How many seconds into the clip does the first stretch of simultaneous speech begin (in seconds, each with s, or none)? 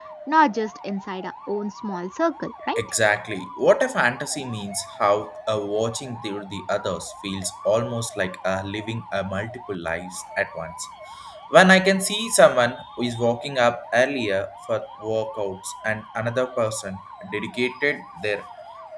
none